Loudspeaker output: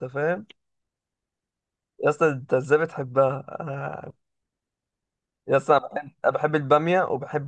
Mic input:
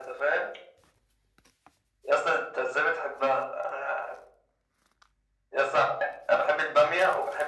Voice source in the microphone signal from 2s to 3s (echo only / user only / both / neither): echo only